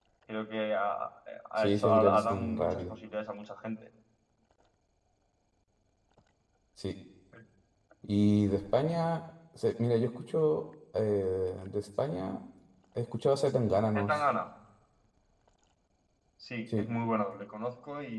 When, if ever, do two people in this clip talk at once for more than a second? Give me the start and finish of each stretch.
1.6-2.8

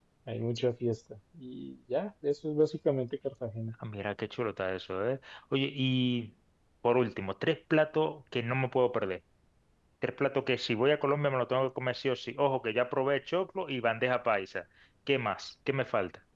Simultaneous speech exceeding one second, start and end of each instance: none

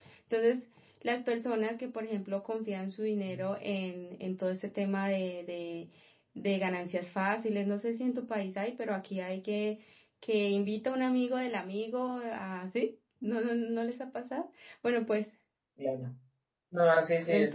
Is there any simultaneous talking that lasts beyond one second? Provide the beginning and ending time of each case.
none

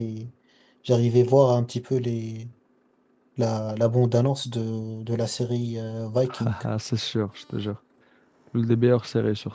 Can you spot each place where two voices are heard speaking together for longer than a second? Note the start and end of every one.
none

